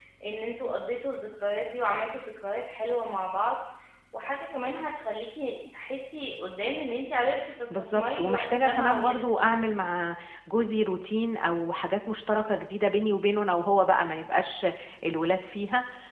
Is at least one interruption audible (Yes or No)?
Yes